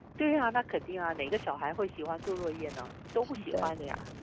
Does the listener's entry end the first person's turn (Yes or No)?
Yes